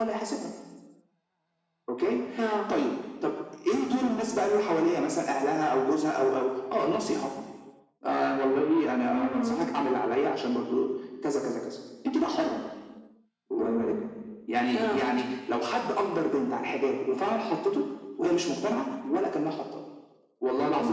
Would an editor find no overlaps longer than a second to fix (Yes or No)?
Yes